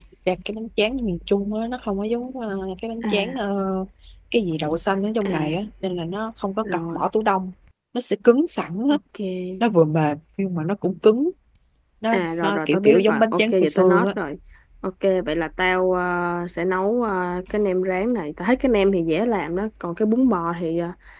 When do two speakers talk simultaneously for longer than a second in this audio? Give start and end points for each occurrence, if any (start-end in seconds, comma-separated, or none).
12.1-14.1